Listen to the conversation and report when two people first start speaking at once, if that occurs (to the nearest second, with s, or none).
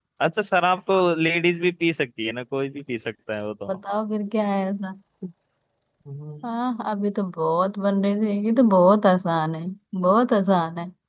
none